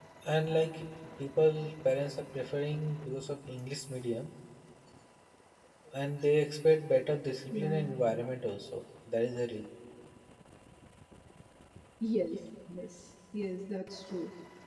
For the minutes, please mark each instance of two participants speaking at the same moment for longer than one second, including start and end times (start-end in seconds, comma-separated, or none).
none